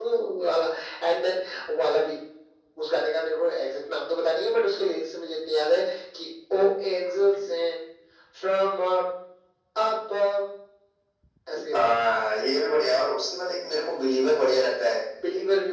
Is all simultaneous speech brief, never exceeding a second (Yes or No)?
Yes